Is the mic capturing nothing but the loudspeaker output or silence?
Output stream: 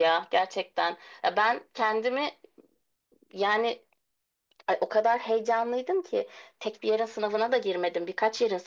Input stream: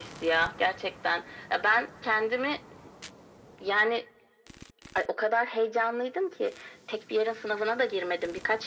Yes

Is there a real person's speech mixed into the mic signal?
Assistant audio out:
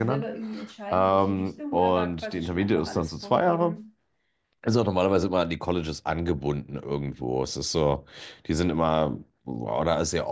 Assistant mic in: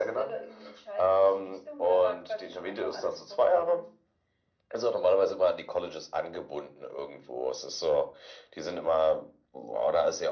No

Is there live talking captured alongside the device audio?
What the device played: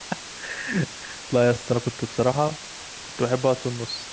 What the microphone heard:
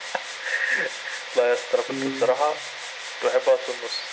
Yes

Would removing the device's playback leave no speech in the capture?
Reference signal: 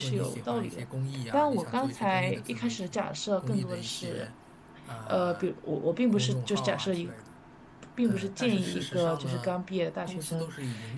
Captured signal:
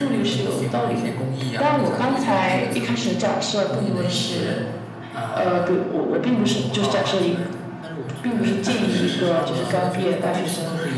No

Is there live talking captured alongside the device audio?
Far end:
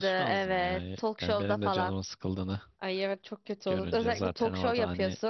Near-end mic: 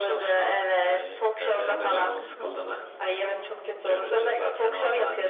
Yes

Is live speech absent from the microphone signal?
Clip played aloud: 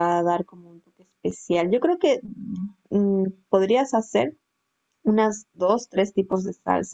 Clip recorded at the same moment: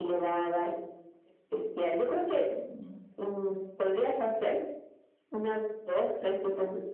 Yes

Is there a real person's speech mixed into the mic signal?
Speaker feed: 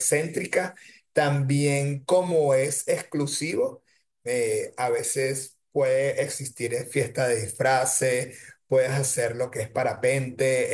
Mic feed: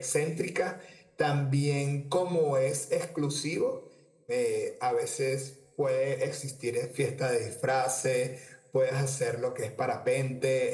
No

